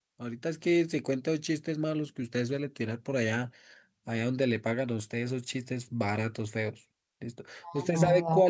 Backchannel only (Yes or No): Yes